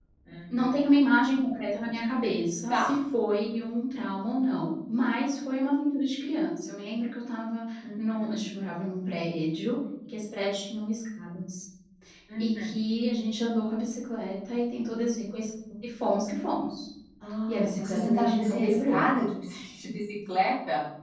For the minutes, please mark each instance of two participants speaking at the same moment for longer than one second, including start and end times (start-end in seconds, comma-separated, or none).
17.5-19.0